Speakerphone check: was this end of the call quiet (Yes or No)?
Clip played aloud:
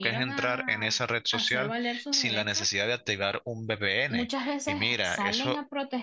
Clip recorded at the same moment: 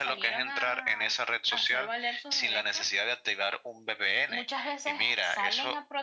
Yes